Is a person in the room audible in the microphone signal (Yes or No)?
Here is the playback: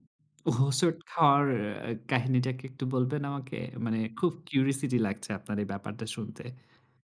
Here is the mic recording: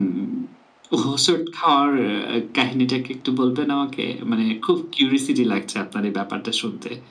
No